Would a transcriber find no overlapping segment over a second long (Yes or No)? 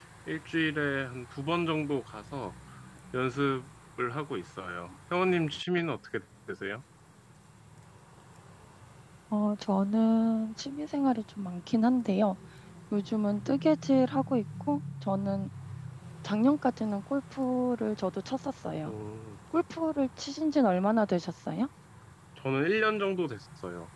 Yes